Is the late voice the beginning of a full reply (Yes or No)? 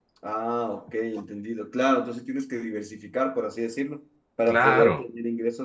No